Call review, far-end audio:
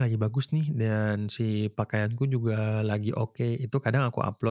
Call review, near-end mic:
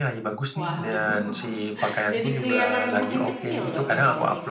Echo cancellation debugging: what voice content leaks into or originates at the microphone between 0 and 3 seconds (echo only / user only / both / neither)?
both